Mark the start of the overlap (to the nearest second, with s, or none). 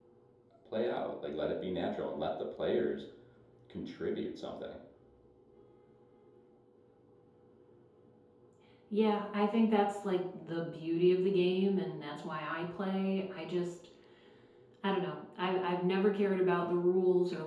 none